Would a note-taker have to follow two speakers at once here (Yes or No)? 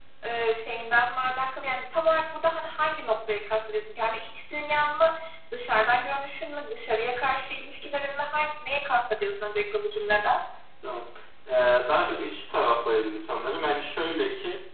No